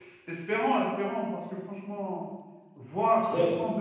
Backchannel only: Yes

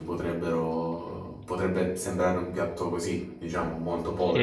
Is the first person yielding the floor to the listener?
Yes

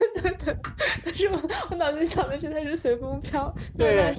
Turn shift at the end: Yes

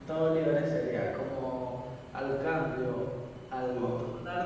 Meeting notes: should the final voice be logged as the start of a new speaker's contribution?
No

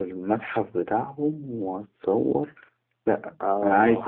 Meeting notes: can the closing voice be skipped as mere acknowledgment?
Yes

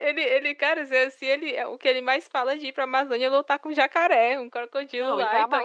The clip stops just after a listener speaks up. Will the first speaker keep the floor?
No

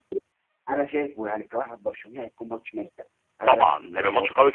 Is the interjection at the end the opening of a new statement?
Yes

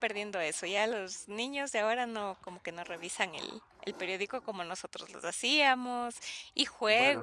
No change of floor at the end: No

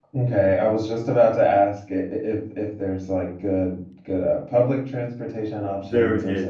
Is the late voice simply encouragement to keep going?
No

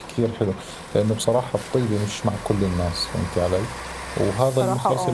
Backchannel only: Yes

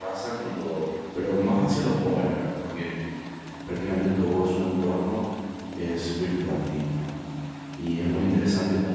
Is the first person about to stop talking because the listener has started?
No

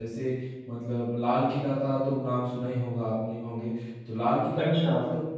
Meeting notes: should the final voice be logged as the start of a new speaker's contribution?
No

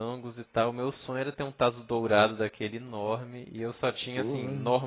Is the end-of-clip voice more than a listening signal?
No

